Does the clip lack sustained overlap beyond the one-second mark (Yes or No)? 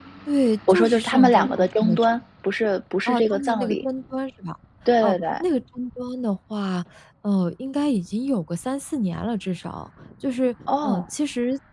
No